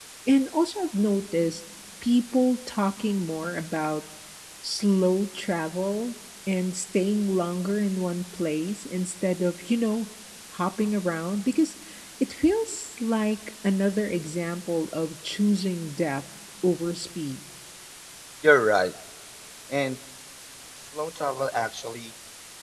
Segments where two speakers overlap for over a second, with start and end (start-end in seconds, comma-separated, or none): none